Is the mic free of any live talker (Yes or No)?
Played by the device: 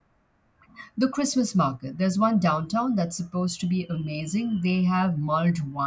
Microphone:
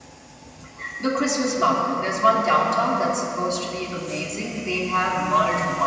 Yes